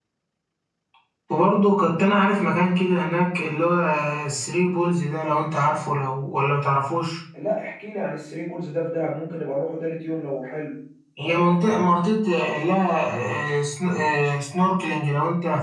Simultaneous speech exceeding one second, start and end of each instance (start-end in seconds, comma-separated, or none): none